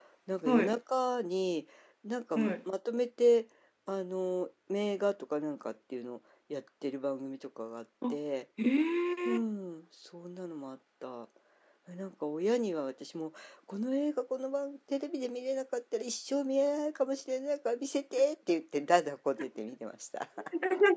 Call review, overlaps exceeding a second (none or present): none